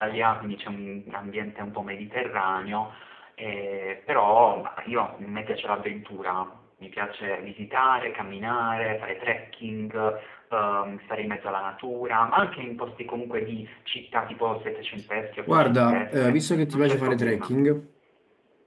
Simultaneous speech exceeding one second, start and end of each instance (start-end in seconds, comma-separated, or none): 15.5-17.5